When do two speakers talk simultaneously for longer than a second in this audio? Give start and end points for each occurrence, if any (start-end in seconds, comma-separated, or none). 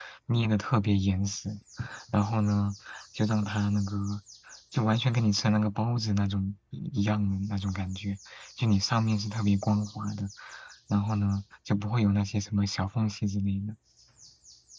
none